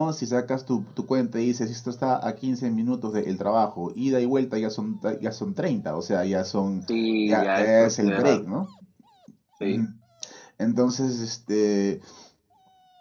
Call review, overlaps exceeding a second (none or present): present